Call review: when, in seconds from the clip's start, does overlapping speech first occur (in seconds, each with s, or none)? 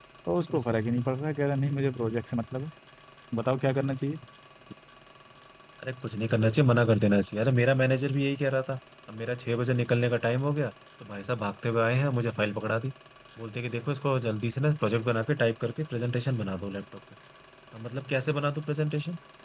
none